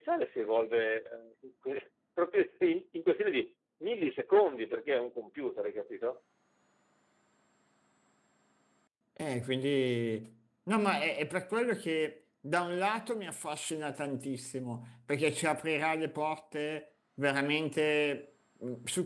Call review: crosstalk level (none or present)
none